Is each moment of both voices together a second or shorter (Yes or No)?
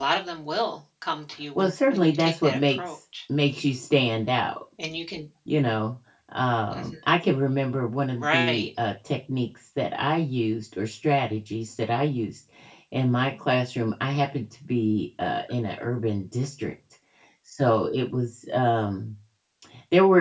No